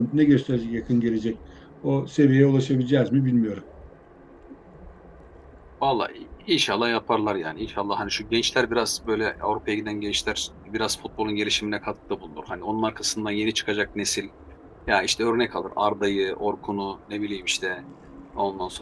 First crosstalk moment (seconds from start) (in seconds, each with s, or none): none